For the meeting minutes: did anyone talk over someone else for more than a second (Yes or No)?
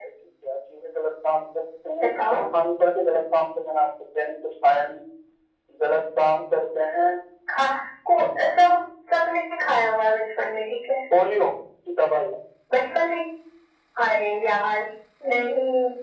No